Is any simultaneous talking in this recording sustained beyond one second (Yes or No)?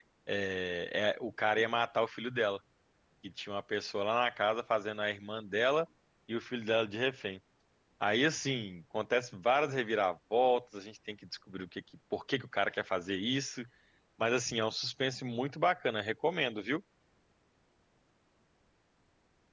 No